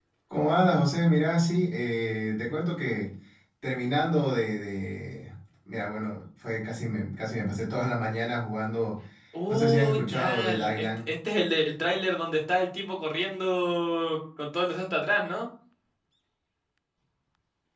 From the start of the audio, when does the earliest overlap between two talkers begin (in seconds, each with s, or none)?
9.5 s